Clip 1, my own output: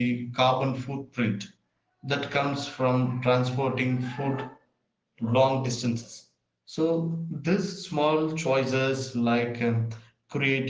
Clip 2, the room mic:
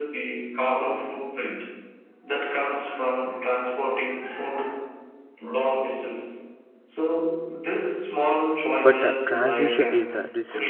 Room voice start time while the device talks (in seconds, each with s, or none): 8.8 s